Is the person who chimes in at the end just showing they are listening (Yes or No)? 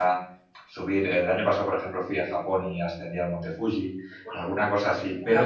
Yes